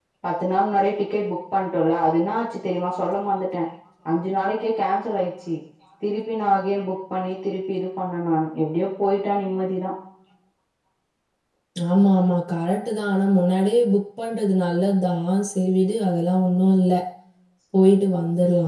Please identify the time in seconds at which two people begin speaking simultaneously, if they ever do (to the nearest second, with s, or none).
none